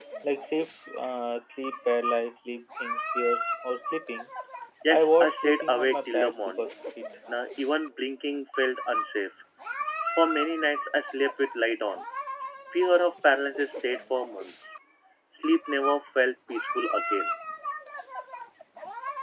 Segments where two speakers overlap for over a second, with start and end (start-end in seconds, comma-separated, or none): 4.9-6.7